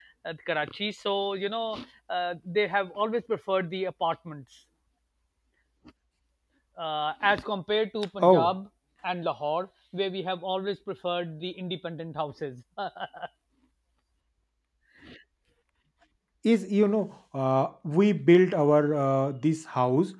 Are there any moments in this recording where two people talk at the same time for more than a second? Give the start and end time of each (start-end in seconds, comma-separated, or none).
none